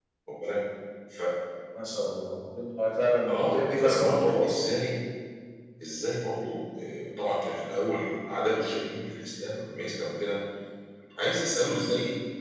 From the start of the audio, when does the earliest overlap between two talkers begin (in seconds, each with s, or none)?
3.3 s